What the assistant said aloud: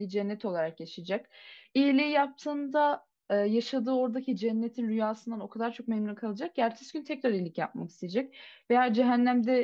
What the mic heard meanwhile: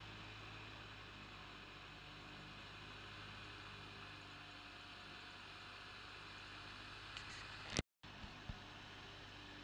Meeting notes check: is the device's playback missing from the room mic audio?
Yes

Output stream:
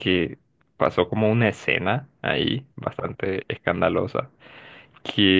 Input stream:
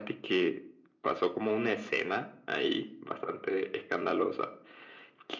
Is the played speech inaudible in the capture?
No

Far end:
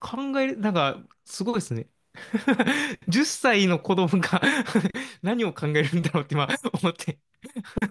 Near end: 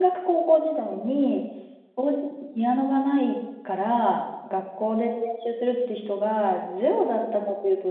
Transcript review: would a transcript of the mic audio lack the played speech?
Yes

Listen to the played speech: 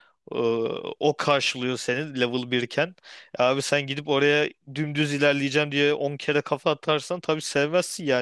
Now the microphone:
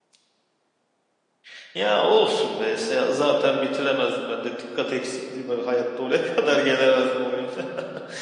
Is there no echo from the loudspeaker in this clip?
Yes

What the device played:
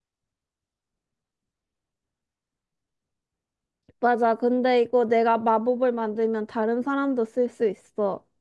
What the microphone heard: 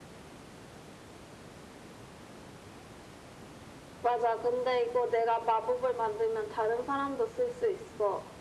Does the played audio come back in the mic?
Yes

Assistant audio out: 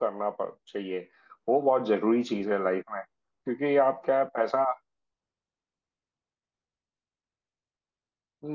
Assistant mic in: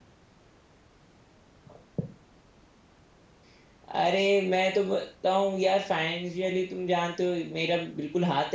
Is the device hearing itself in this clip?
No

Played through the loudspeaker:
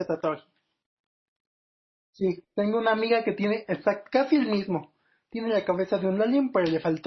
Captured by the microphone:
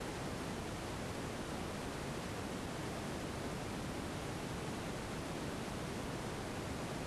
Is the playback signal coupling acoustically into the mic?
No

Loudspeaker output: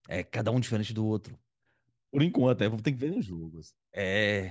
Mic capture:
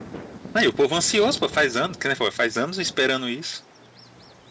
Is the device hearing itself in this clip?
No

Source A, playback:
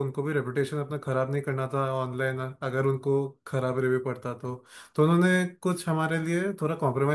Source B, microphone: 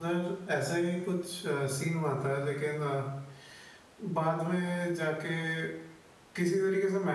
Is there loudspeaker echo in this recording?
No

